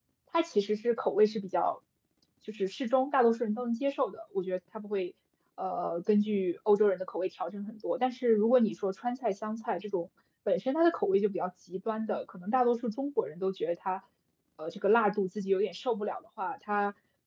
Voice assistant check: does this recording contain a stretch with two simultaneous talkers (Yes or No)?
No